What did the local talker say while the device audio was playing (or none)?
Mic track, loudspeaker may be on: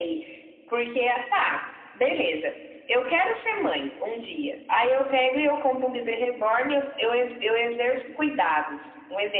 none